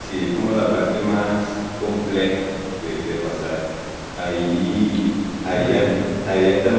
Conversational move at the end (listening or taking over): listening